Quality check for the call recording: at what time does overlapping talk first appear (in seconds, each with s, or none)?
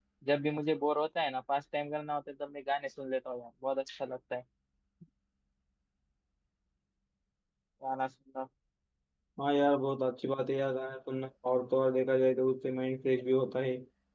none